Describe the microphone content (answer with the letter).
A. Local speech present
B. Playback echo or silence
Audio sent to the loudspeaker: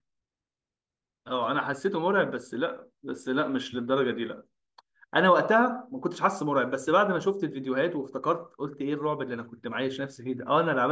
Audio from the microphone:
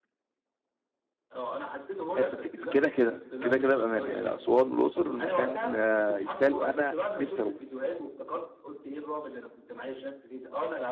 A